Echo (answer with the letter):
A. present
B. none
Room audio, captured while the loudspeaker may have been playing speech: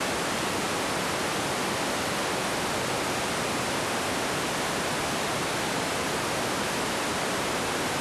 B